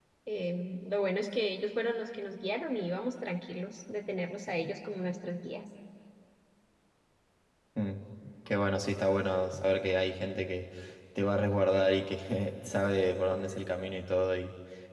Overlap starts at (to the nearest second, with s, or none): none